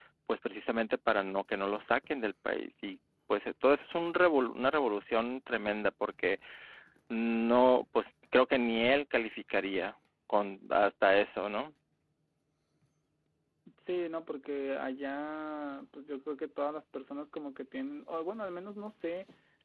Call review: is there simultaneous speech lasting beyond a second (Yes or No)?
No